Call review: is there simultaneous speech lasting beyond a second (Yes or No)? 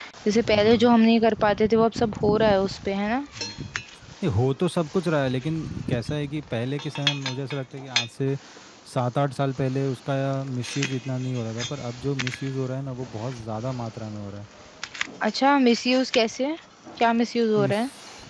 No